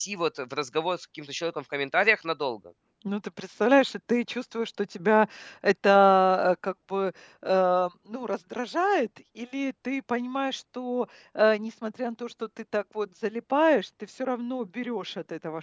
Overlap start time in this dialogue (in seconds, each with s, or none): none